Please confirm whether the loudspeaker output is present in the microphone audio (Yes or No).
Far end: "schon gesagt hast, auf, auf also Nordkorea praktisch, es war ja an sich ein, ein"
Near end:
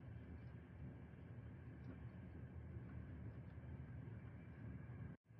No